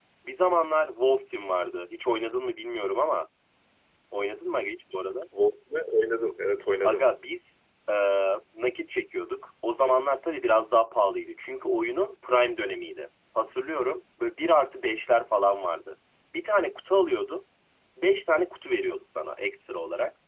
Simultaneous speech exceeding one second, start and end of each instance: none

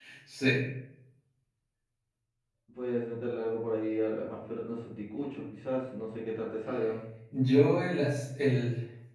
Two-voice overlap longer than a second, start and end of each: none

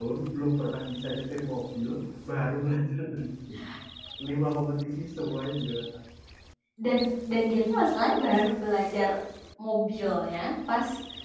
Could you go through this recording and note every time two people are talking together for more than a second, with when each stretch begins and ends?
none

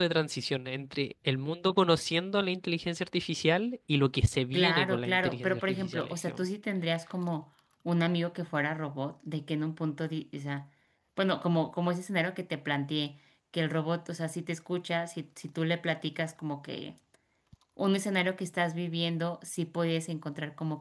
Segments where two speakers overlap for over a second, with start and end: 4.5-6.5

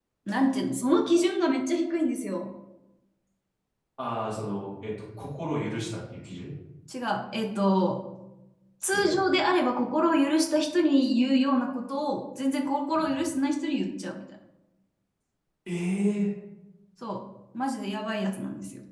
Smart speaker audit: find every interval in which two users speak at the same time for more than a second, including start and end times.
none

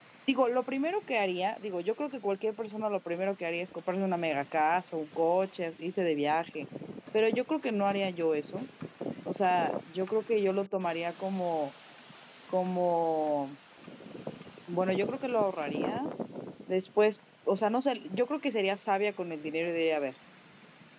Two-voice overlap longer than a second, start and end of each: none

